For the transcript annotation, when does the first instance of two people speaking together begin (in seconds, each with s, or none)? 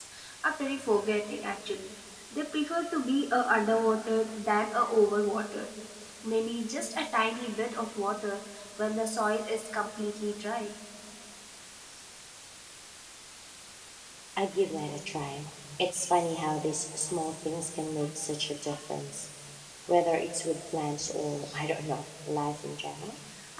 none